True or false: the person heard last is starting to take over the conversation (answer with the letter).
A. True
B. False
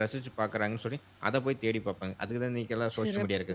A